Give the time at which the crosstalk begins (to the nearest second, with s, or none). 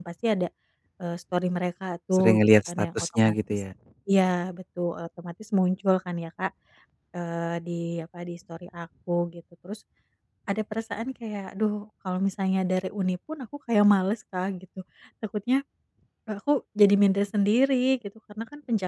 2 s